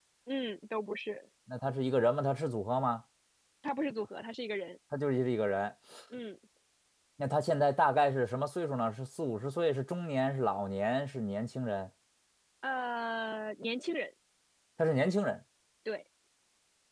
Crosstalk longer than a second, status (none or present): none